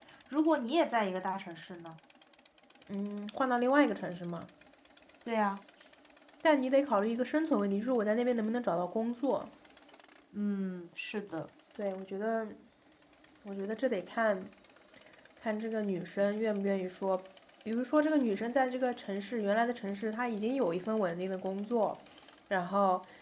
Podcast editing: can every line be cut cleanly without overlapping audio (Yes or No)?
Yes